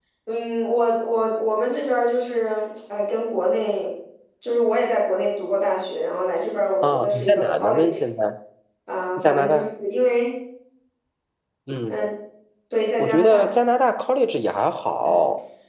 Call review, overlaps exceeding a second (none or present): present